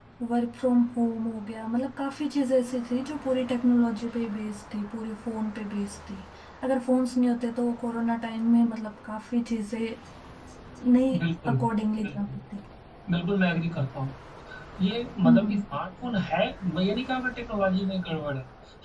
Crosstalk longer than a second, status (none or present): none